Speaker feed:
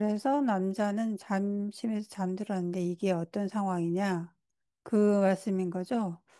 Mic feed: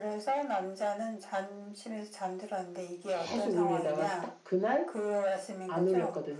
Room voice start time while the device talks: 3.0 s

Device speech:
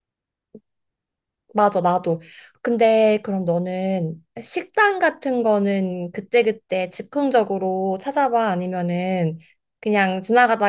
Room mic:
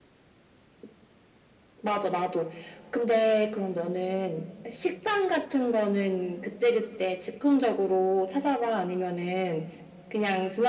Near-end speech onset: none

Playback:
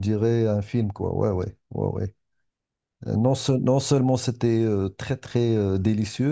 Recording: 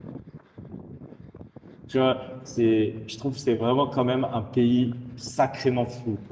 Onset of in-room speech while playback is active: 1.9 s

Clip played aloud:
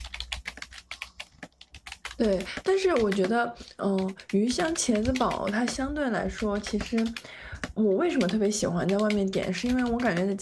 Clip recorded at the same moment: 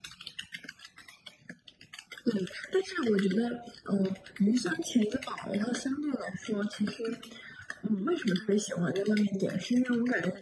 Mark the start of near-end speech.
none

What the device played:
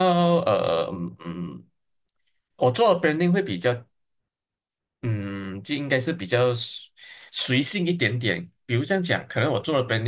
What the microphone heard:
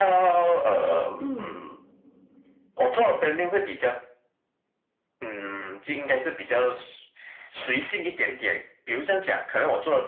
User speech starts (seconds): 1.2 s

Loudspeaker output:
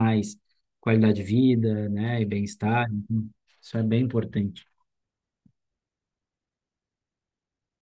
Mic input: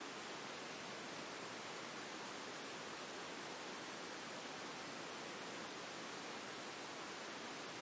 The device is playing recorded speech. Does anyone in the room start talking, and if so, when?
none

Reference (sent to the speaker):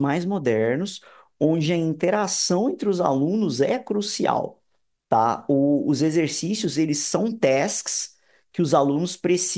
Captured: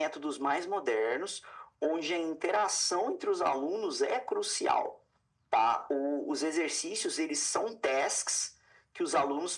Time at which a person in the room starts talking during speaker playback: none

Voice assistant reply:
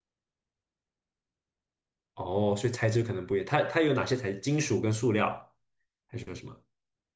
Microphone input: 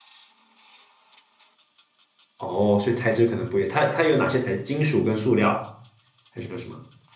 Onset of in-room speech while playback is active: none

